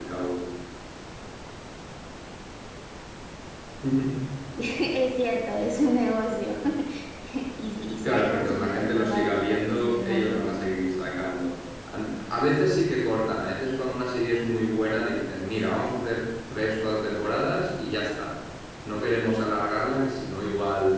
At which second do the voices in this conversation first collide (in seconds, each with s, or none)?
8.0 s